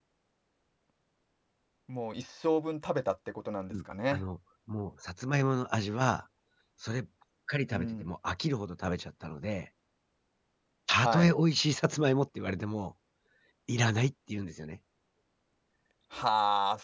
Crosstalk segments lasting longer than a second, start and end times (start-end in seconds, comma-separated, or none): none